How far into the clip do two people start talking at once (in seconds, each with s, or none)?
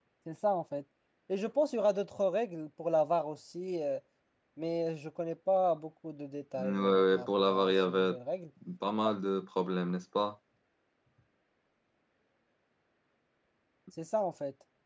6.6 s